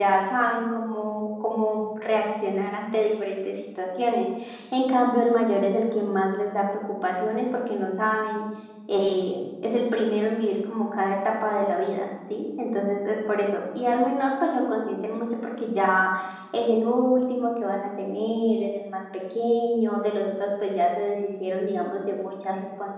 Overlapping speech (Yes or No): No